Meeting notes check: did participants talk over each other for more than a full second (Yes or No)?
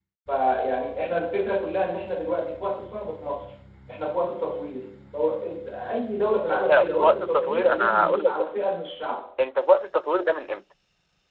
Yes